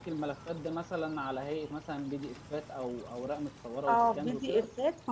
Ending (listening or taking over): taking over